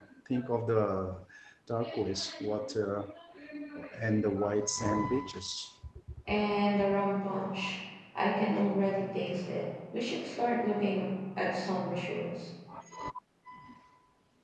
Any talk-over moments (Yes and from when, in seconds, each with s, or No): No